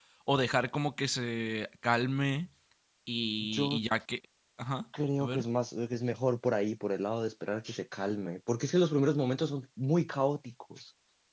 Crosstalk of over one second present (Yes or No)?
No